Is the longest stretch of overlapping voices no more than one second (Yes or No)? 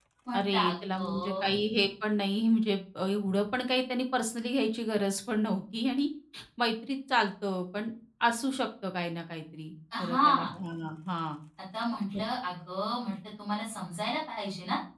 No